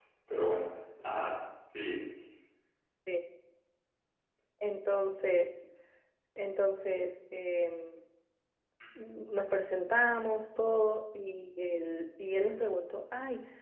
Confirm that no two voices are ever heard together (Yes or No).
Yes